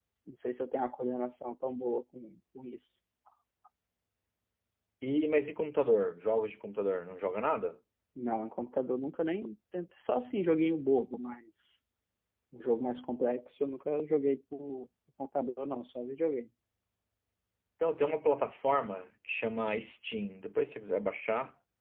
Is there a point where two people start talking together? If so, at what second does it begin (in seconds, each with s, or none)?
none